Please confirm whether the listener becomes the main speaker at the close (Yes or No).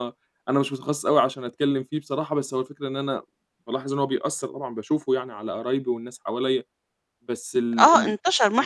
Yes